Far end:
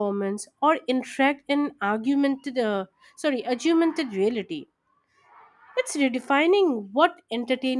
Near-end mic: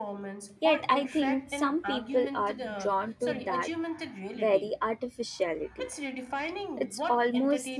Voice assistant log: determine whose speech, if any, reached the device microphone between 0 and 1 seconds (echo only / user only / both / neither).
both